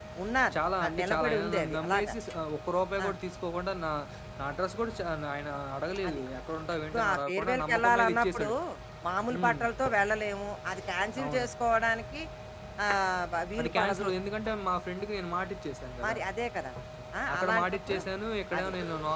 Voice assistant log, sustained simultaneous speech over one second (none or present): present